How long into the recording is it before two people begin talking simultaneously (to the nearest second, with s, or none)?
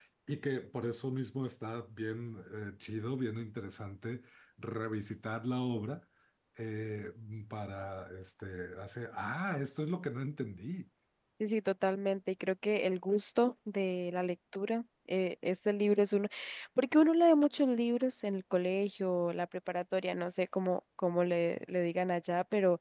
none